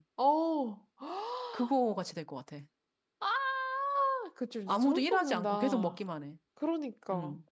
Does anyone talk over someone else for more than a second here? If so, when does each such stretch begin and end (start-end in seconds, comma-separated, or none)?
4.7-6.0